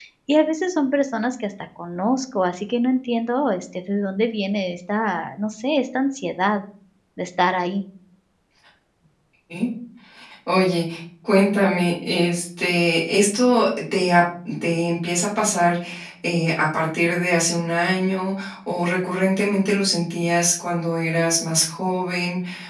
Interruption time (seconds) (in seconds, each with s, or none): none